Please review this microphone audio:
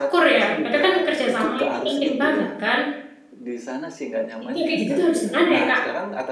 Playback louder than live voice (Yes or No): No